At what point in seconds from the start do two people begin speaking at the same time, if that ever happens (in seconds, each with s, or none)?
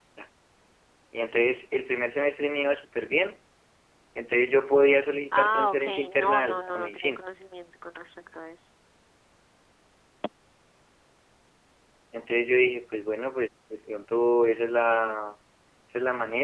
5.3 s